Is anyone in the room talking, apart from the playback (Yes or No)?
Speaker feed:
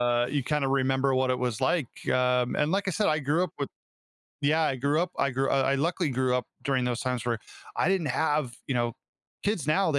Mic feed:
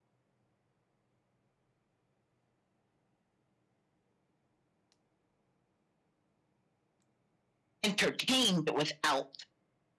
Yes